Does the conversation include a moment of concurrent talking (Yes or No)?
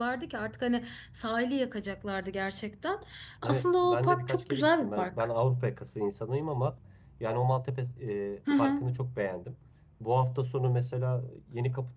Yes